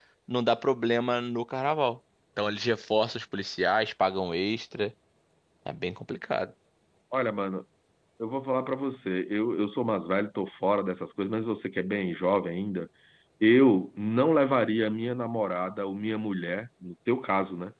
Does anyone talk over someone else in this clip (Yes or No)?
No